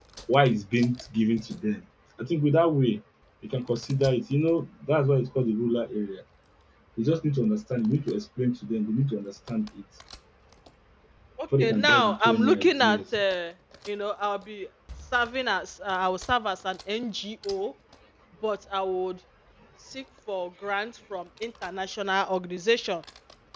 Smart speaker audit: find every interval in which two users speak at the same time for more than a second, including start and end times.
11.6-13.0

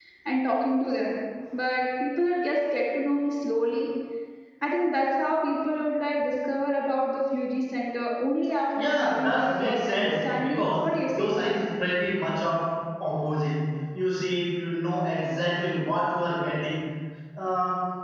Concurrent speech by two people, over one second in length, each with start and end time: 8.8-11.3

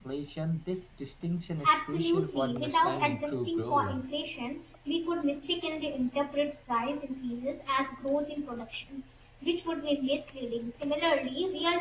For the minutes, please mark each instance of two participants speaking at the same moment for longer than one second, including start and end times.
1.6-4.0

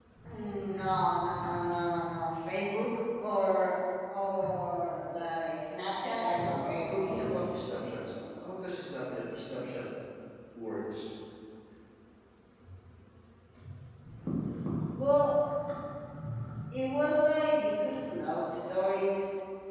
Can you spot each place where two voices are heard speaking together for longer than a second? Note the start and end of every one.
6.3-7.6

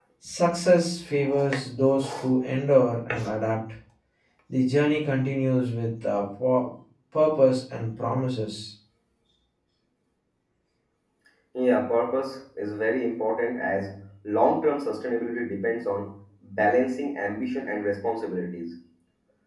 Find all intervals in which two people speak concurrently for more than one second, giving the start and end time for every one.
none

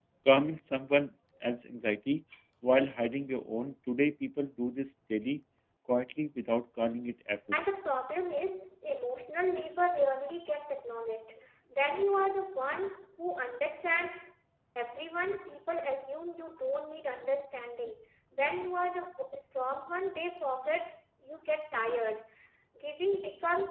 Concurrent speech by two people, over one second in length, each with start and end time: none

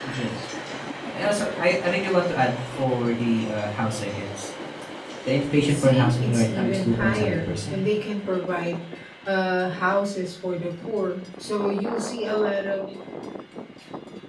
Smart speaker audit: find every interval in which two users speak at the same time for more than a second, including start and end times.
5.7-7.8

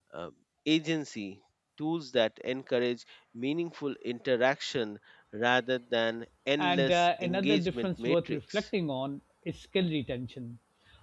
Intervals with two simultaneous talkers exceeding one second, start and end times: 6.6-8.6

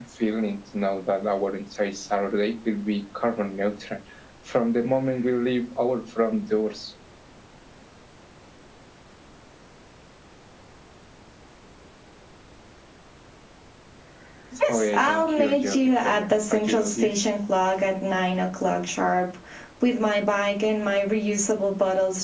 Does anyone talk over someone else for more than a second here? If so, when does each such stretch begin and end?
14.7-17.1

